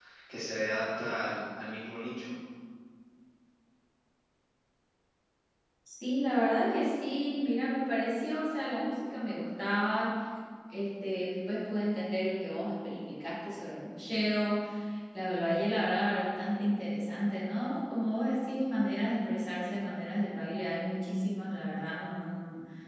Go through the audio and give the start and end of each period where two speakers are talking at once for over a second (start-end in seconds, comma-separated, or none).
none